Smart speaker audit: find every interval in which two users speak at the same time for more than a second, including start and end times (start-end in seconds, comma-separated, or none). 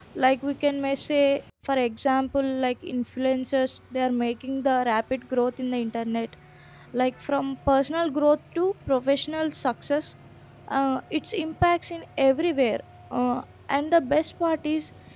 none